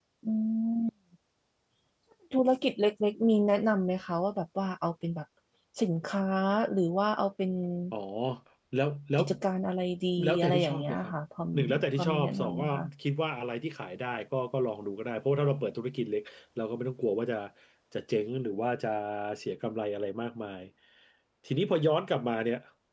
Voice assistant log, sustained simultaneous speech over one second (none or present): present